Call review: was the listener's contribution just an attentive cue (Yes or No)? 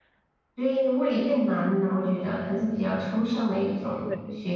No